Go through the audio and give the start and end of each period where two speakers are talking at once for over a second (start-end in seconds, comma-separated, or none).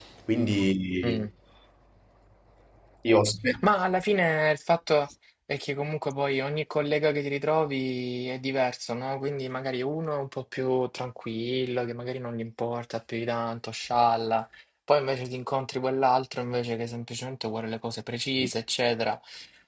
none